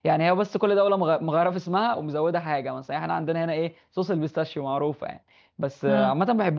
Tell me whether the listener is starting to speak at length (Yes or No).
No